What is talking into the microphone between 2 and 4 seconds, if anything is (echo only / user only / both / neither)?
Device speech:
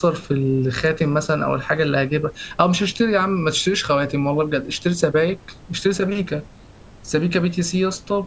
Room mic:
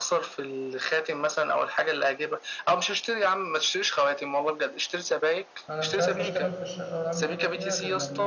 echo only